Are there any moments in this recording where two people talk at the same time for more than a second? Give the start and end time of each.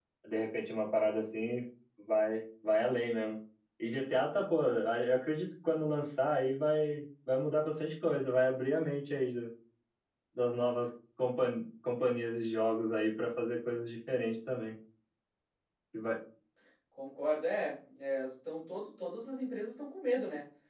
none

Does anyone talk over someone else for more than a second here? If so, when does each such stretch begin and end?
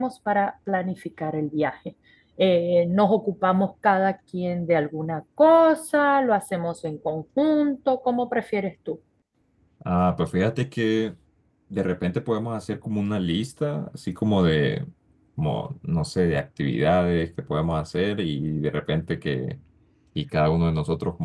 none

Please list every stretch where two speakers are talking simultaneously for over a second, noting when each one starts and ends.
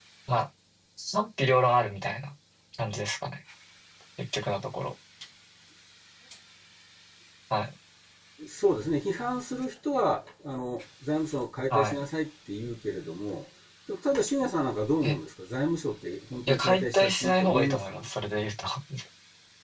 16.5-17.9

